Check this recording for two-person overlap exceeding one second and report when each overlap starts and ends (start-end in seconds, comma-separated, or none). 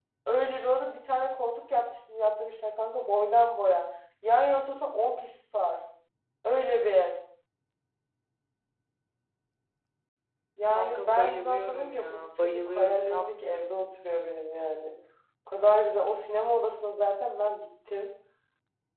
10.8-13.2